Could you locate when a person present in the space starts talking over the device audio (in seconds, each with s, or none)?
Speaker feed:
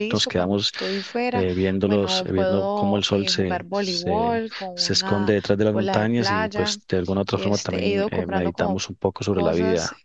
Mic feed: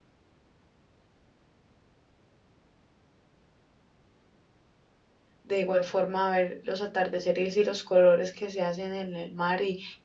5.4 s